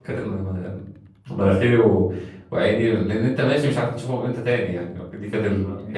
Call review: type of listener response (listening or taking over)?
taking over